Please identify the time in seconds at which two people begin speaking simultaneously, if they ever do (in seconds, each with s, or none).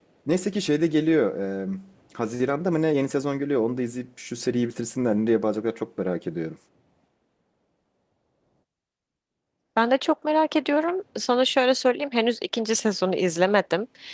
none